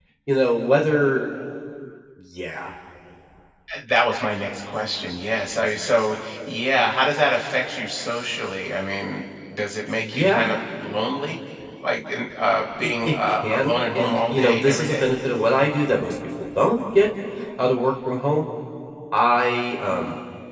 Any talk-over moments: Yes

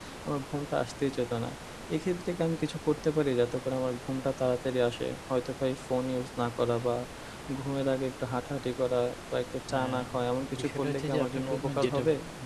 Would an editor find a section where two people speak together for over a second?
Yes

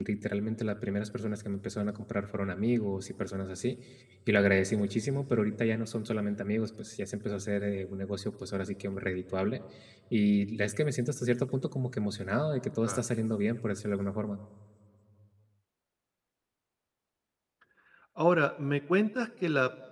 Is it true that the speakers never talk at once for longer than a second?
Yes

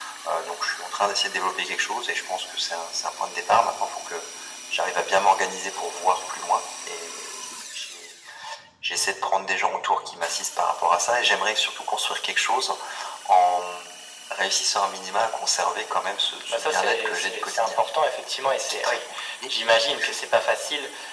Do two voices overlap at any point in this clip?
Yes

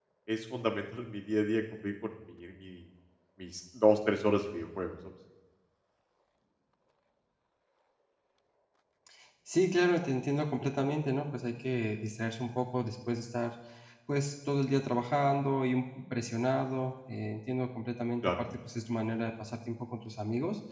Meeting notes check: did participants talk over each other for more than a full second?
No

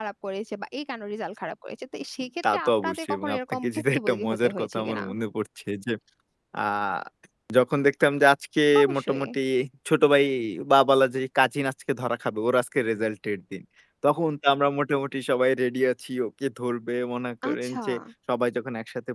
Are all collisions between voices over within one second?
No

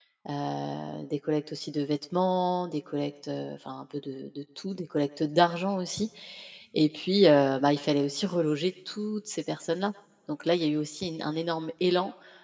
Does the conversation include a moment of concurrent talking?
No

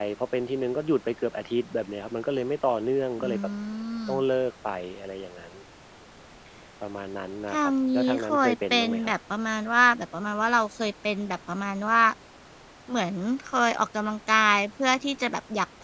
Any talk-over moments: Yes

